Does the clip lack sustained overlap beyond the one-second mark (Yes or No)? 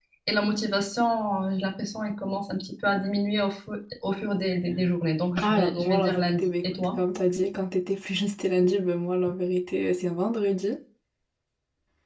No